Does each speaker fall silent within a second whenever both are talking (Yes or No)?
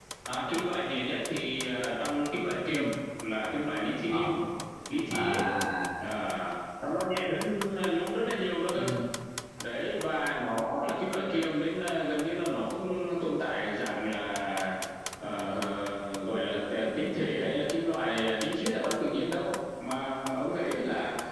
Yes